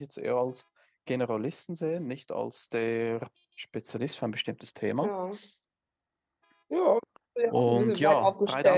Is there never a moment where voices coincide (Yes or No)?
No